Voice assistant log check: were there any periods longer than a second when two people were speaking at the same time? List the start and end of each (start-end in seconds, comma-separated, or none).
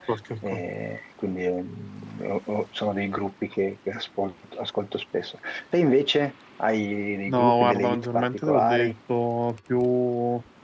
7.3-8.9